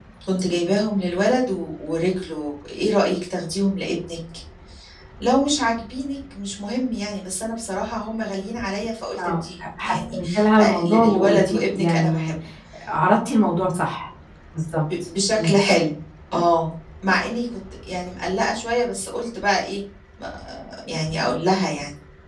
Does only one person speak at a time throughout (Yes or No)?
No